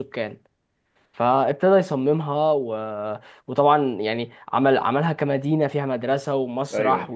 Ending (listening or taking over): listening